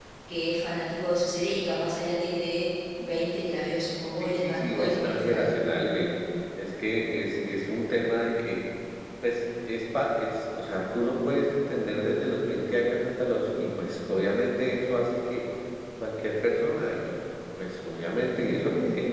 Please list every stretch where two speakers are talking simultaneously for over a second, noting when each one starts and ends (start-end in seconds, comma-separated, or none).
4.2-5.5